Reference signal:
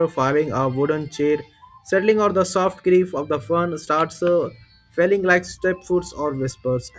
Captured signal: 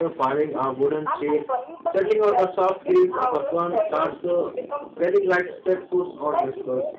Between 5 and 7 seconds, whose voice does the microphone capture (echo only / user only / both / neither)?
both